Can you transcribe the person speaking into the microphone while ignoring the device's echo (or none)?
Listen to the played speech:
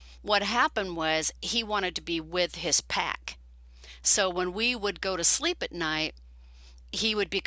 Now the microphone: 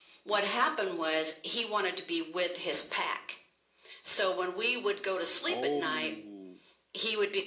Oh,